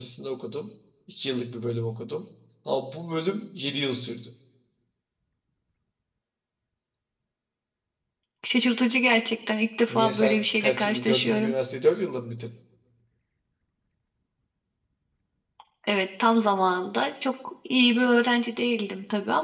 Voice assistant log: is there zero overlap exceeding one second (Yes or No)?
No